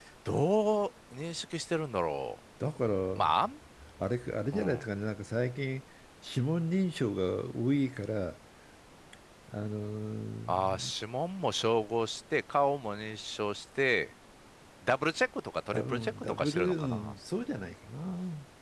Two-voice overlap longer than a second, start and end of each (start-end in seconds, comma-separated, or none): 15.7-17.1